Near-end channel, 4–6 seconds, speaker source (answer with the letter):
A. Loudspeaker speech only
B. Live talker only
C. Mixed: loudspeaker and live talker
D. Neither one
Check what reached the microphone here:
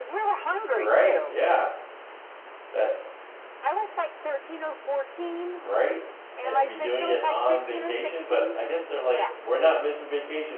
C